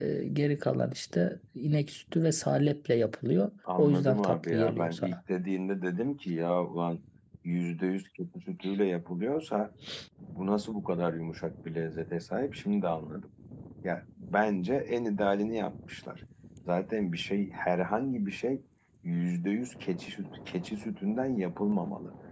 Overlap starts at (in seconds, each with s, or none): 3.7 s